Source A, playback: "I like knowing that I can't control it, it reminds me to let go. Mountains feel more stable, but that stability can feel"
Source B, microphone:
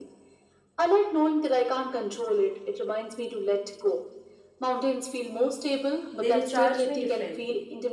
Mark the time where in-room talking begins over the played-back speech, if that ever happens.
6.2 s

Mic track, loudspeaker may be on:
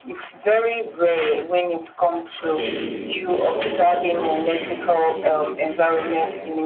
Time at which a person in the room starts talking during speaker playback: 2.3 s

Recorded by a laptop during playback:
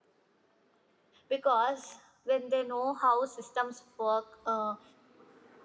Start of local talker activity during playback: 1.3 s

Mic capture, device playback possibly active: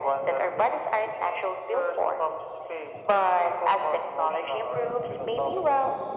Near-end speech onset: none

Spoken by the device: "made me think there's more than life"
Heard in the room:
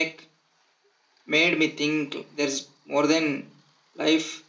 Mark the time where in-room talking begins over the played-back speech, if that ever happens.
none

